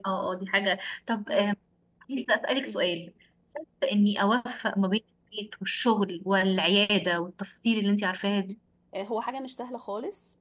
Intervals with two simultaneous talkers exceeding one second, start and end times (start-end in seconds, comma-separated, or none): none